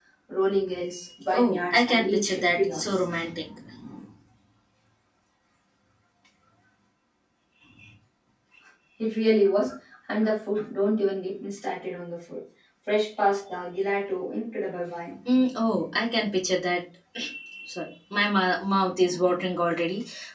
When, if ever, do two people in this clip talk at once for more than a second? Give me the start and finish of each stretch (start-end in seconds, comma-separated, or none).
1.3-3.0